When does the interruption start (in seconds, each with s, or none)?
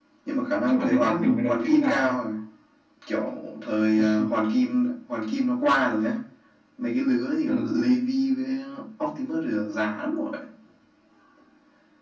0.7 s